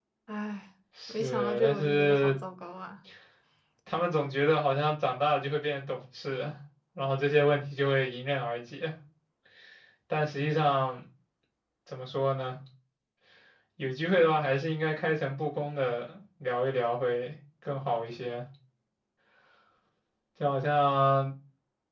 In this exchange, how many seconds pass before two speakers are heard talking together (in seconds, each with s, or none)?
1.1 s